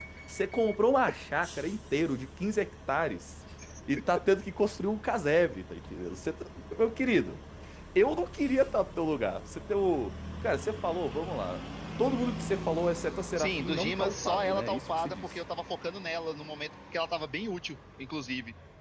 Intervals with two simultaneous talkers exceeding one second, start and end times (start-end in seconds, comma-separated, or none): 13.4-15.3